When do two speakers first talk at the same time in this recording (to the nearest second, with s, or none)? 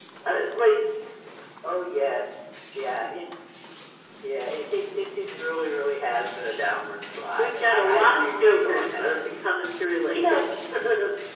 7 s